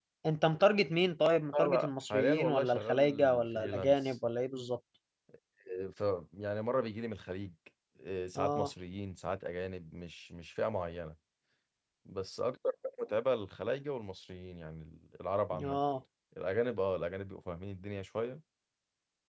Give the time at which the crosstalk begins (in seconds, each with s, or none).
1.5 s